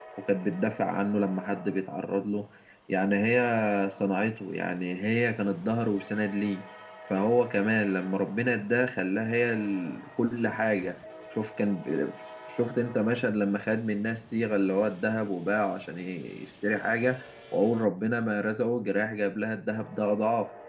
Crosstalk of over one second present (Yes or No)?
No